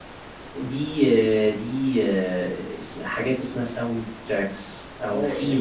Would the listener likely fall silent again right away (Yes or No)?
No